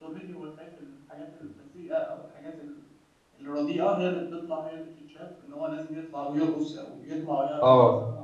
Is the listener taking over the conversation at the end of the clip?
Yes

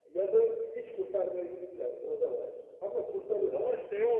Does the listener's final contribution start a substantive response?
Yes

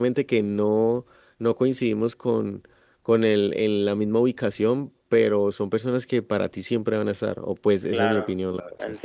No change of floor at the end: No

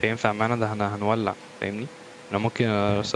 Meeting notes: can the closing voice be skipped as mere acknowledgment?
Yes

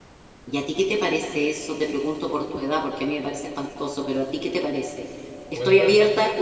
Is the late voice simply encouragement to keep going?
Yes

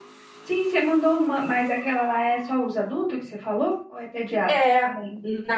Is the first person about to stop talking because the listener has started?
Yes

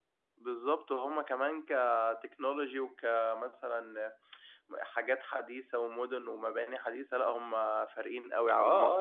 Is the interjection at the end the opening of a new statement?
Yes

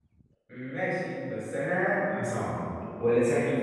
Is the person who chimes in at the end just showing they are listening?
No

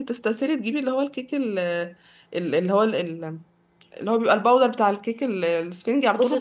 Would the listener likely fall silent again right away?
No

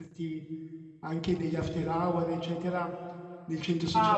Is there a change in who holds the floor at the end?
Yes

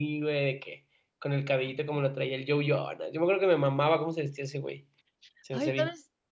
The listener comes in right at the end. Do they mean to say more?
Yes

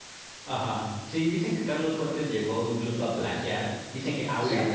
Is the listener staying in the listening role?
Yes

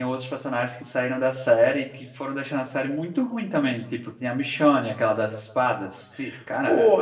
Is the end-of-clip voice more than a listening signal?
Yes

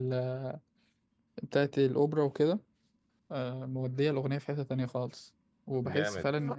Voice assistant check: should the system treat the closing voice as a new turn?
No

